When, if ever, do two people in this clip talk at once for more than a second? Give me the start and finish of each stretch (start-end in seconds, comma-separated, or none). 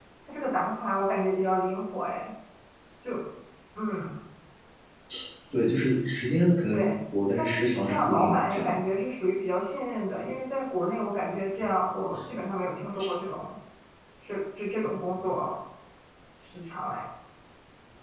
7.4-8.9